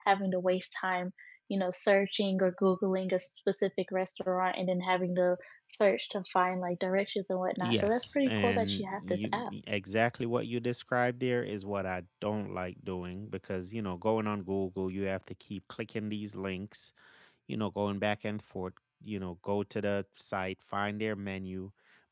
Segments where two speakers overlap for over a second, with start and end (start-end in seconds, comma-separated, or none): 7.6-9.5